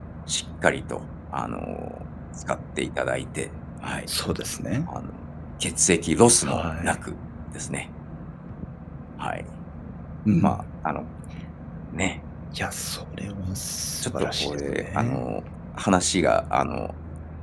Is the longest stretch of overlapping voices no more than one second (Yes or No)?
No